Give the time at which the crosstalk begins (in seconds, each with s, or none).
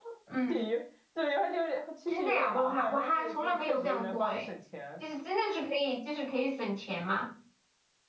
2.1 s